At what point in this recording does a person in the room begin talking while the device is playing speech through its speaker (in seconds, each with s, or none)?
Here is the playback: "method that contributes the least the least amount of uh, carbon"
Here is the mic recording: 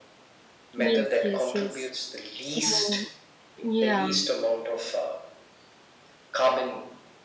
0.8 s